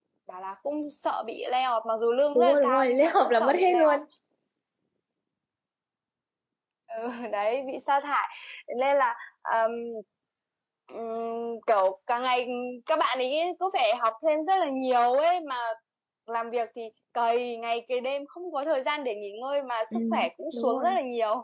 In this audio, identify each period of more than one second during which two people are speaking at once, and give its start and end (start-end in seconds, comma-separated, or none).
2.4-4.0